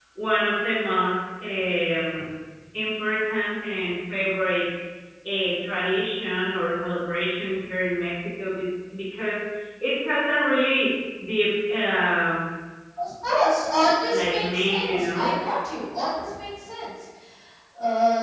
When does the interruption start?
14.1 s

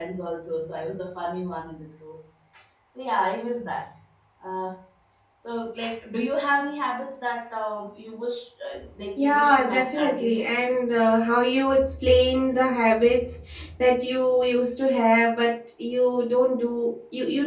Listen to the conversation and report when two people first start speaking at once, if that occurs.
9.2 s

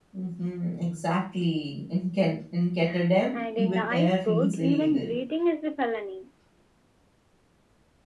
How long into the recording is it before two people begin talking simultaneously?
3.3 s

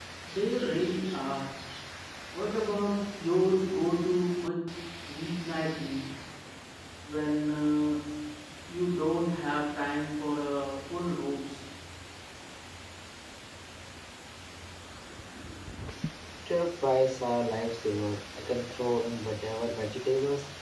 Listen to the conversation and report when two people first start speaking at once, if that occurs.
none

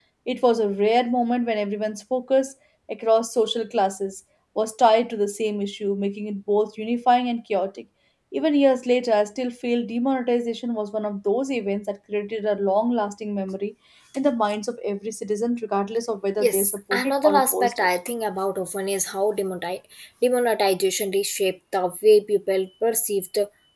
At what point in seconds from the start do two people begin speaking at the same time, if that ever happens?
16.4 s

